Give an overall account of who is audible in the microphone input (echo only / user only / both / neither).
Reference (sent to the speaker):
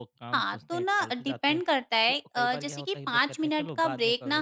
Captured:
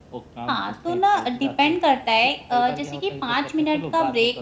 echo only